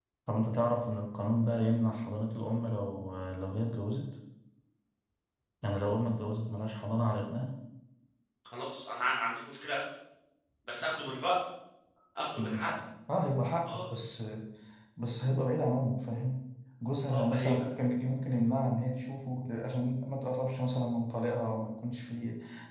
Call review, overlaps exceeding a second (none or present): none